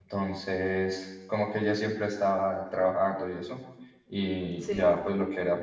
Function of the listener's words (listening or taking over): listening